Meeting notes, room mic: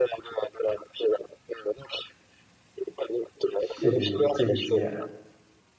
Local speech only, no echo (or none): 谢谢谢谢，借你吉言，